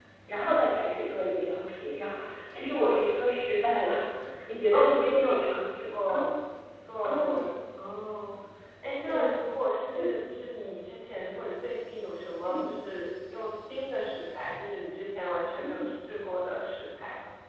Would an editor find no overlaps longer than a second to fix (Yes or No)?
No